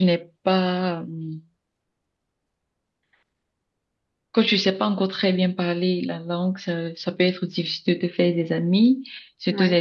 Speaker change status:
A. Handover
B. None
B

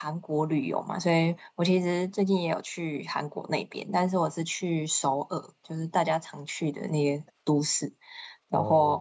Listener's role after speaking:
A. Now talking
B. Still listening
B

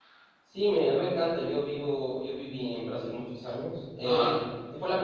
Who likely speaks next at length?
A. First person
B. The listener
A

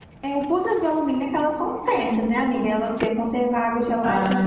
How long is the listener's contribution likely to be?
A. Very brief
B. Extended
B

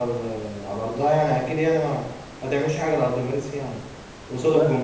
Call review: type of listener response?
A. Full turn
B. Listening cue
B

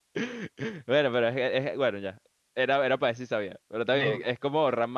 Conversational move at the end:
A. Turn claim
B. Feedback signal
B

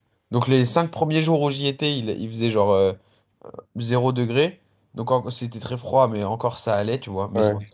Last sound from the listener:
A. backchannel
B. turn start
A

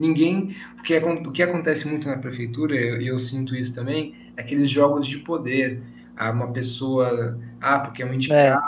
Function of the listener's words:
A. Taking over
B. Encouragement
B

